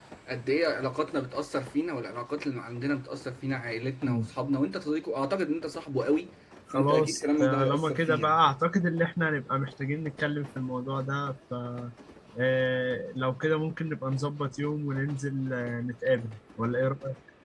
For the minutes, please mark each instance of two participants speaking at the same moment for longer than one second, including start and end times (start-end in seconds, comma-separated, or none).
6.7-8.4